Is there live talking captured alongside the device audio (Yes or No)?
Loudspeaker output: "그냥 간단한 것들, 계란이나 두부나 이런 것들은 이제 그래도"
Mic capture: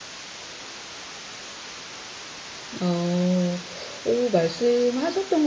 Yes